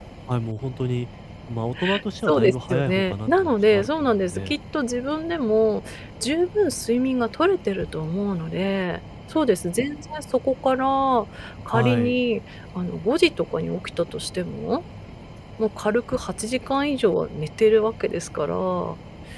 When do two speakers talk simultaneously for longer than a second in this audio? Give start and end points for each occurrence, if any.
2.3-4.6

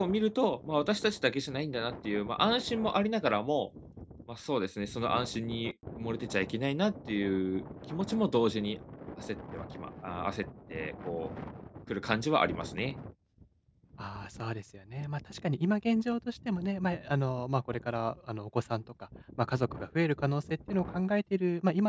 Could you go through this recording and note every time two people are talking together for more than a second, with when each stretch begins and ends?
none

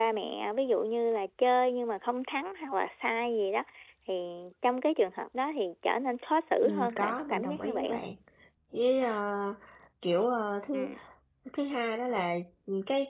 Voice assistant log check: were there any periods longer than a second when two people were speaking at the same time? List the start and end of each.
6.6-8.0

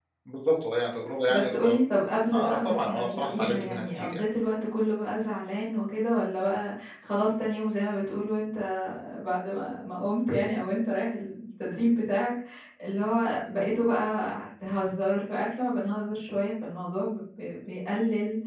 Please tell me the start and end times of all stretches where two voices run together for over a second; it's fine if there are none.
2.3-4.2

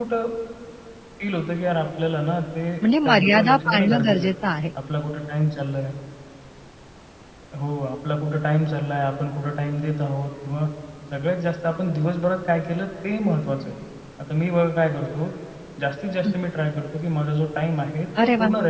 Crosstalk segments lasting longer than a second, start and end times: 3.0-4.3

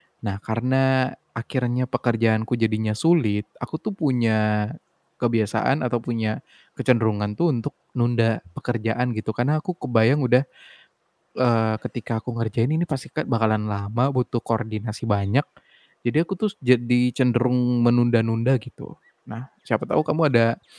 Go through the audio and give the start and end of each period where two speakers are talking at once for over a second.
none

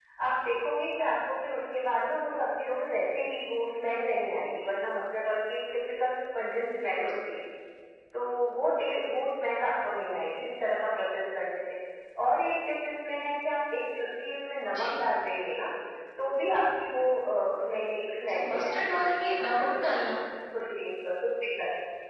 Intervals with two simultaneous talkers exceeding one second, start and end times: 18.3-20.2

